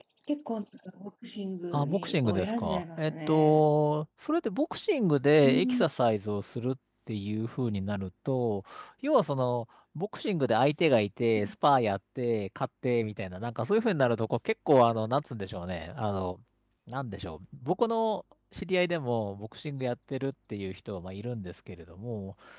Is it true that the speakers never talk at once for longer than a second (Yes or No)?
No